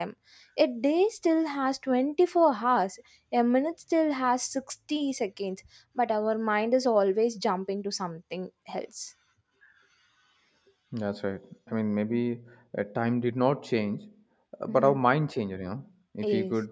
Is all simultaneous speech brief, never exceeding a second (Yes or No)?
Yes